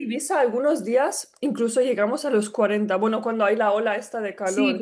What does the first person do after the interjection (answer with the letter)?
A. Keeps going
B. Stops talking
B